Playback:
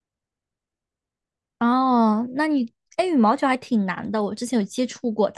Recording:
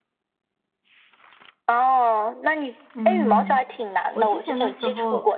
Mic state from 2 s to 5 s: both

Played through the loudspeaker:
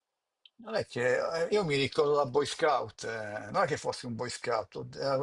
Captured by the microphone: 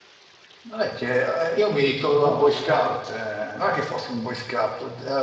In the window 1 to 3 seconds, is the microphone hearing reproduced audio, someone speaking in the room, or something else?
both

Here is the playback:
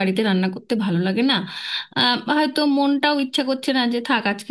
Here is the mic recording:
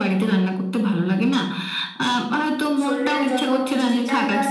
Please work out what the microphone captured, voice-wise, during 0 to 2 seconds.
echo only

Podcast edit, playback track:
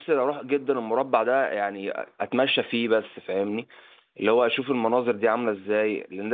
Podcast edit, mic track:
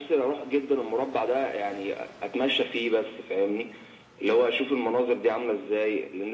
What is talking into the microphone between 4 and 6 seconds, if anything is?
echo only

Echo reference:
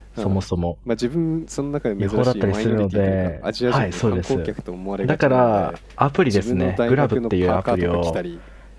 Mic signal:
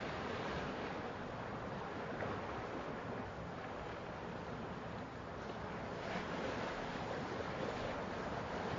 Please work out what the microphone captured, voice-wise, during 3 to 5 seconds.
neither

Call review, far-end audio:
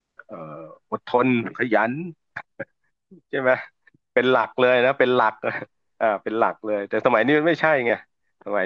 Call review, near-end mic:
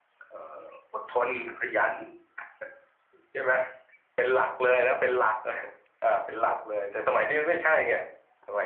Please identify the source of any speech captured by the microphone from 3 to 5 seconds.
echo only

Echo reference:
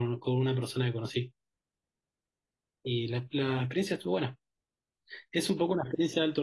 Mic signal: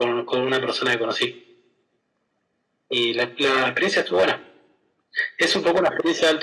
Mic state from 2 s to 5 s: echo only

